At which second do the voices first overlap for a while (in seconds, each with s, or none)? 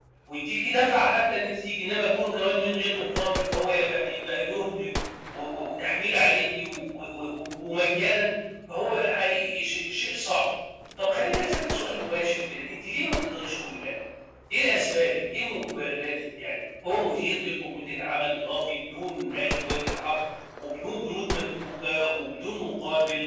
none